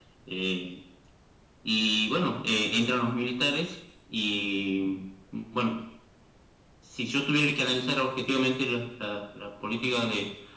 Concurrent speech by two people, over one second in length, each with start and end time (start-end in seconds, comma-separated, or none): none